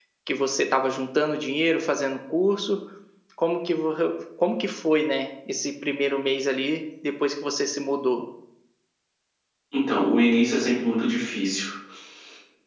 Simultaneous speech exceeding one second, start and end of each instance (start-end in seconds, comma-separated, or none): none